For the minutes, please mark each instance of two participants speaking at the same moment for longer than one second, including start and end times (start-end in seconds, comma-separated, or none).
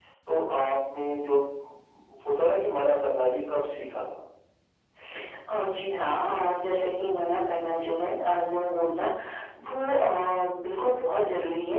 none